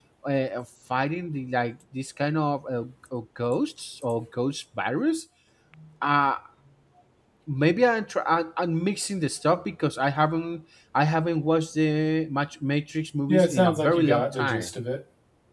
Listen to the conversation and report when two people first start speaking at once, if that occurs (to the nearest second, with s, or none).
13 s